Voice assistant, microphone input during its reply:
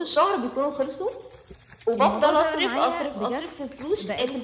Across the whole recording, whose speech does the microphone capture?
both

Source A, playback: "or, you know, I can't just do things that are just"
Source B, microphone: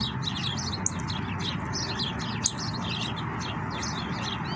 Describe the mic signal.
neither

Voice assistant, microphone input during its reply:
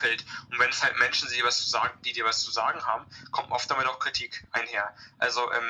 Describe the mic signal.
echo only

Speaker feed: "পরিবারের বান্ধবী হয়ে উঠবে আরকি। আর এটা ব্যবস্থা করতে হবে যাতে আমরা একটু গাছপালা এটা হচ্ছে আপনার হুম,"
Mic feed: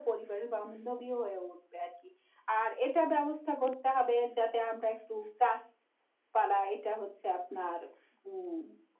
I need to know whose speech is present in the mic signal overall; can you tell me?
echo only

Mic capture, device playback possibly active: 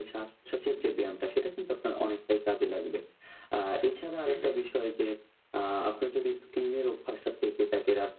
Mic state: both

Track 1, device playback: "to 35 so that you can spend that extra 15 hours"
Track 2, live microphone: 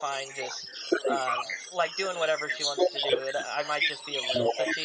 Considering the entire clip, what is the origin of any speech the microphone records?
both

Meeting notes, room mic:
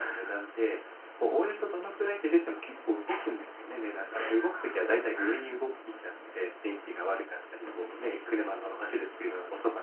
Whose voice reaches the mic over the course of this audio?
echo only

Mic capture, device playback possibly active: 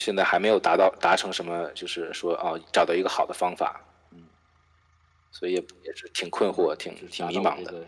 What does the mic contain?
both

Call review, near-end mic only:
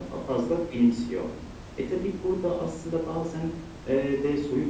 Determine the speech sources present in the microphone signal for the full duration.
echo only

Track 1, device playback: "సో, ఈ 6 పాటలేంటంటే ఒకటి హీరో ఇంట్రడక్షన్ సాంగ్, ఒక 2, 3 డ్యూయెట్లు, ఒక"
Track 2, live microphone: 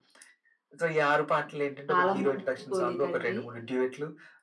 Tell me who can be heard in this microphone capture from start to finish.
both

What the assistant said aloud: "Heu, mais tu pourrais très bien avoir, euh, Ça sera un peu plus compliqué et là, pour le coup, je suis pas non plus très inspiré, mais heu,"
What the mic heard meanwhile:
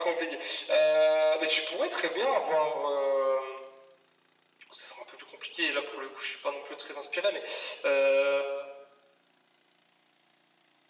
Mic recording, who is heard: echo only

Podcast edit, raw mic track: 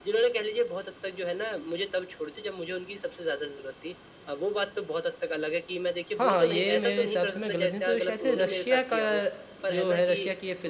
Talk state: both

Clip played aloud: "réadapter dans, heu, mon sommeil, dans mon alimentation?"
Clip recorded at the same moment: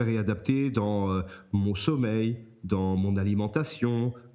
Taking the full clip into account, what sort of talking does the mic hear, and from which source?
echo only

